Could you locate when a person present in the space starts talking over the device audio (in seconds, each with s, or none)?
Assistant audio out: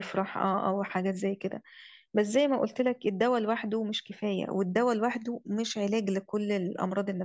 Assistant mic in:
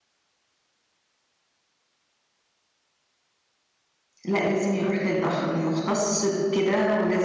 4.3 s